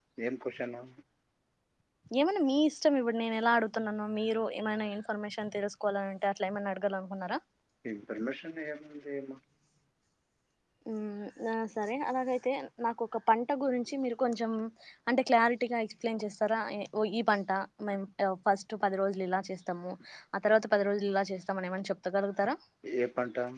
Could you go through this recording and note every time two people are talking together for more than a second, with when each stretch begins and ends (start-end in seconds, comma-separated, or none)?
none